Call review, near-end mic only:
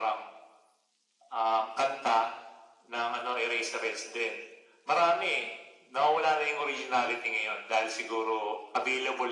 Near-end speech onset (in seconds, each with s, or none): none